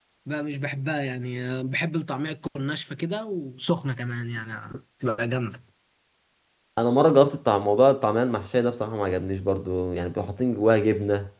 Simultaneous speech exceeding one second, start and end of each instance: none

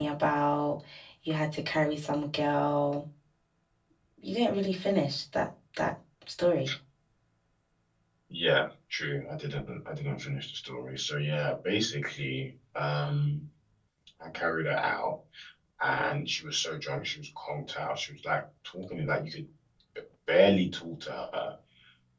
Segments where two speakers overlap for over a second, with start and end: none

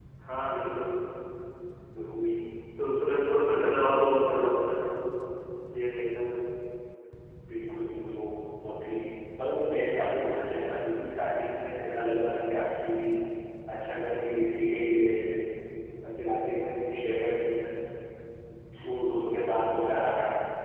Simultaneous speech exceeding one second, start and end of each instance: none

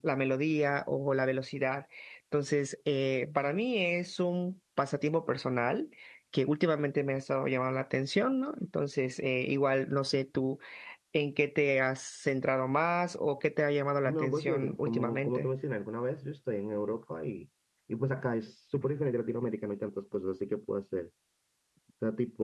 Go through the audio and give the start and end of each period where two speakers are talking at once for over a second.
14.1-15.5

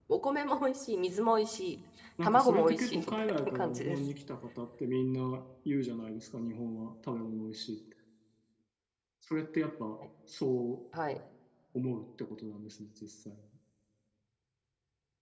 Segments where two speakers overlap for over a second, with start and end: 2.2-4.0

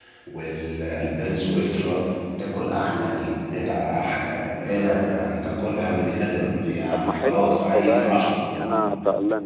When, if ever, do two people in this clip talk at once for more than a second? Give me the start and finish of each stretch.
6.9-8.8

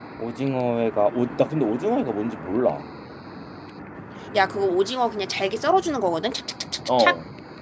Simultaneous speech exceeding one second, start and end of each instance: none

